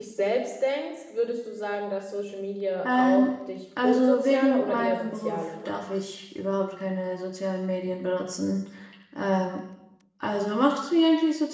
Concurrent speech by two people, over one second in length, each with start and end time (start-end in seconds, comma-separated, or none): 3.8-5.8